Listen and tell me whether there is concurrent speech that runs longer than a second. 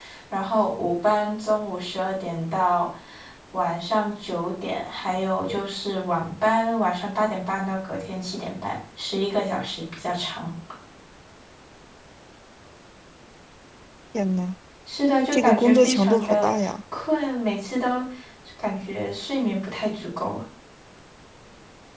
Yes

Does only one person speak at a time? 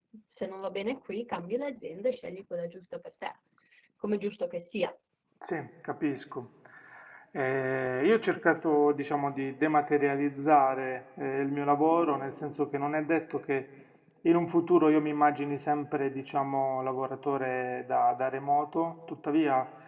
Yes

